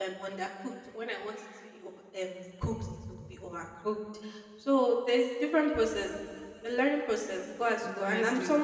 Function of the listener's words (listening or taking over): listening